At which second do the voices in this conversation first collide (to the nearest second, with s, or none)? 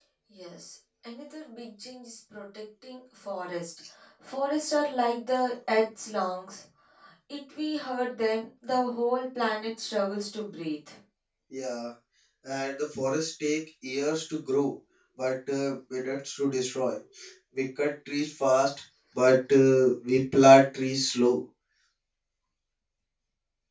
none